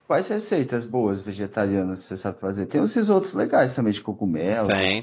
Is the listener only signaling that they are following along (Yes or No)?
No